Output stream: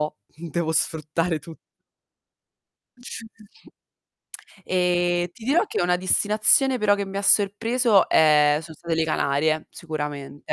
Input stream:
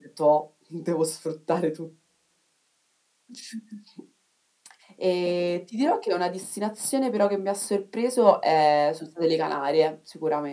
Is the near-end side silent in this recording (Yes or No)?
Yes